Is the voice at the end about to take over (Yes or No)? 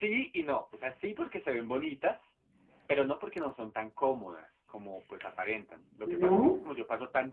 No